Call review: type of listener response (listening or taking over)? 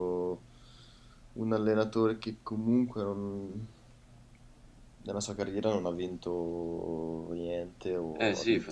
taking over